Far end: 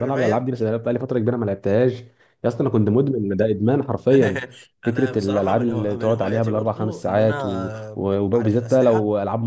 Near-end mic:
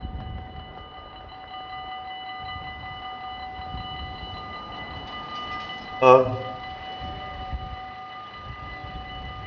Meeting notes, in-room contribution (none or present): present